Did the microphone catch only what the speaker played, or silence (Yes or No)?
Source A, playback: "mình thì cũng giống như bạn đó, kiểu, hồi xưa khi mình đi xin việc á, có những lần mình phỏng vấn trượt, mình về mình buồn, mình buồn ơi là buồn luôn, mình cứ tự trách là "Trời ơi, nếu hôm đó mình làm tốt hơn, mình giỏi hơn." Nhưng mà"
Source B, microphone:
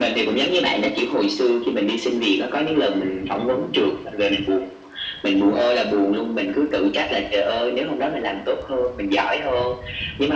Yes